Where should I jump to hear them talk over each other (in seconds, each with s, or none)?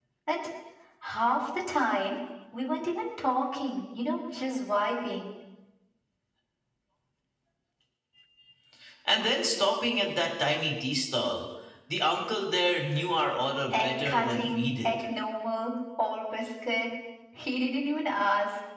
13.7 s